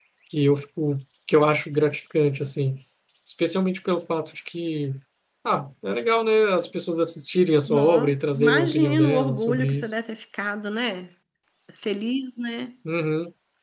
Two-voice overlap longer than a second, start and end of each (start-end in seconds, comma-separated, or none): 7.7-9.9